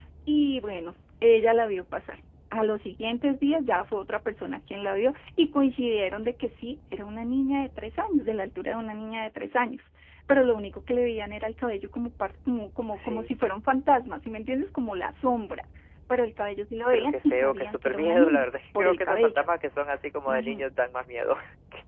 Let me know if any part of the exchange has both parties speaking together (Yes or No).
Yes